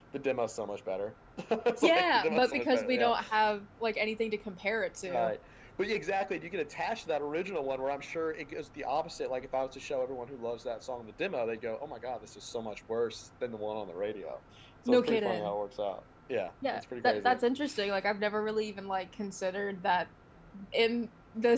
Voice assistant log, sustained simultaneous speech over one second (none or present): present